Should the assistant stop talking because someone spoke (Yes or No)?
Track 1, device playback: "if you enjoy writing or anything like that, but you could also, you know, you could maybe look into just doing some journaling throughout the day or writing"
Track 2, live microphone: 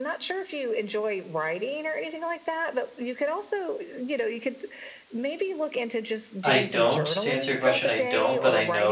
Yes